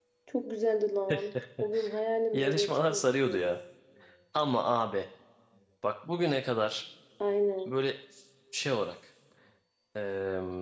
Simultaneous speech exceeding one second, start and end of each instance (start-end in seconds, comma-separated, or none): 2.3-3.6